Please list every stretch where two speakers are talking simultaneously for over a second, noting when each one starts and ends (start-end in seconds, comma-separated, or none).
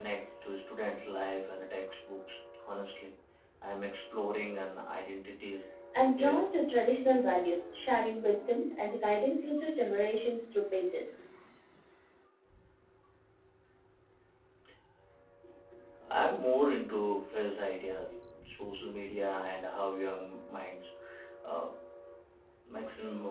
none